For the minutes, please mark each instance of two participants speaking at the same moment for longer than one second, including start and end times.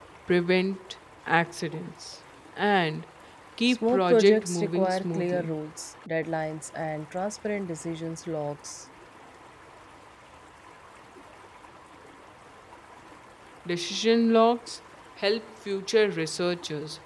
3.7-5.5

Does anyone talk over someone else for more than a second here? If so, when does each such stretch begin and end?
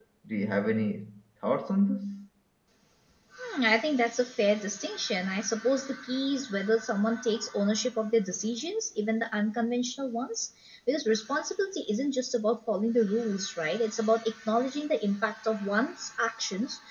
none

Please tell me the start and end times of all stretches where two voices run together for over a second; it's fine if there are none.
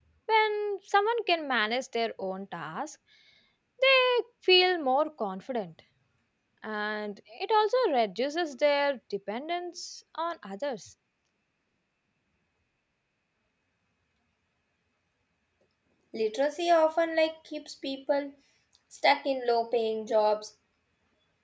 none

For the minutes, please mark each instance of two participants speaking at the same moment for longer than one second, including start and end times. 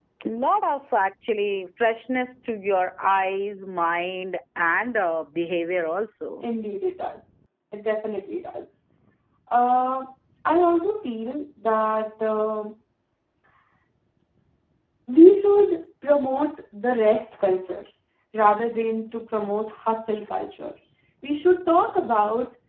none

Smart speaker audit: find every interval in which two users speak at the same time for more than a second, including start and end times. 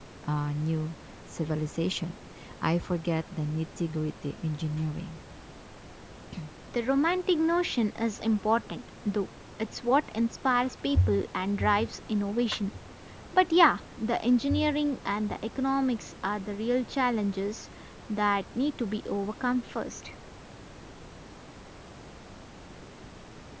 none

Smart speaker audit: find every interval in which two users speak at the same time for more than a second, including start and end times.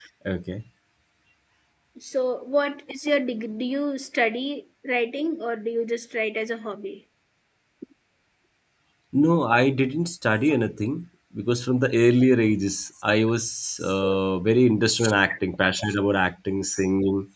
none

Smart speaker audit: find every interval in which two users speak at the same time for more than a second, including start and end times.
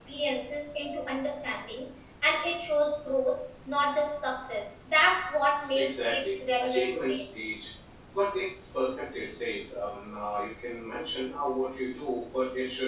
5.7-7.3

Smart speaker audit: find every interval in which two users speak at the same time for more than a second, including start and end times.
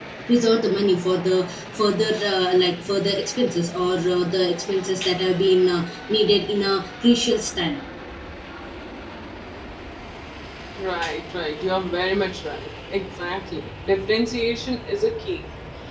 none

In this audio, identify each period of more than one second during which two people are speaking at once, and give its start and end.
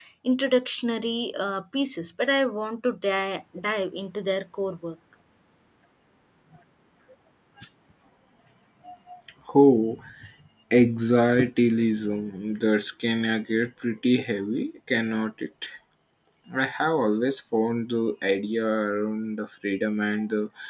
none

